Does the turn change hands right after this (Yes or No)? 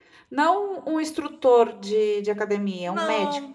Yes